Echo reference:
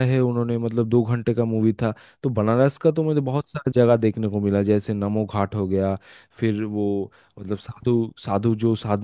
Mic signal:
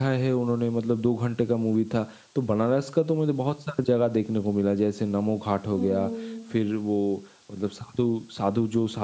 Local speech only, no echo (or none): हम्म